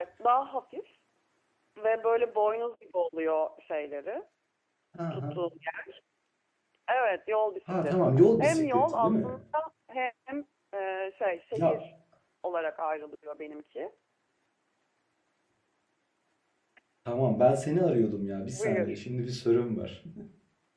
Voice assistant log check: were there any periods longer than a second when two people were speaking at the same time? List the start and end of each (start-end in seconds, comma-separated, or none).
7.7-9.3